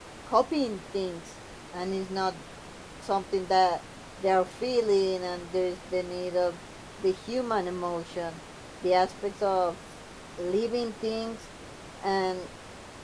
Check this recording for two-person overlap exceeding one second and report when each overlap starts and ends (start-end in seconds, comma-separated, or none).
none